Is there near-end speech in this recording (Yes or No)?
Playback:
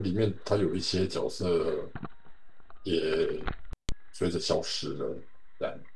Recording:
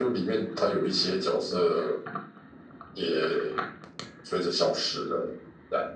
No